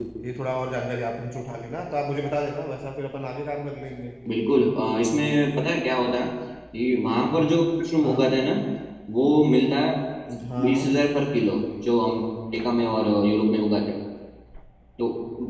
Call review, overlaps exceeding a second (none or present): none